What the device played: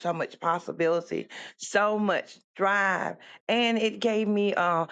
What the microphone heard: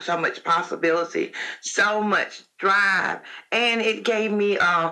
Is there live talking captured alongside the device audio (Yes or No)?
No